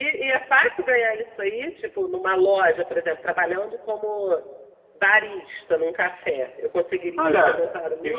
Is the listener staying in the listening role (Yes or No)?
No